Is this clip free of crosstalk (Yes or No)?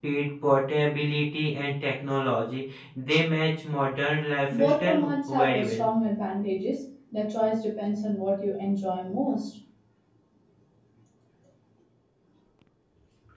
No